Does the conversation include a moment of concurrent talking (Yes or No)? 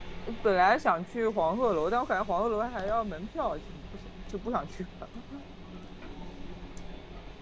No